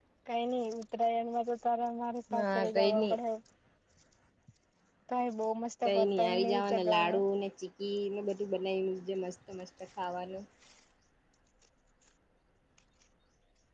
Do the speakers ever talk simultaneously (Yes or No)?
Yes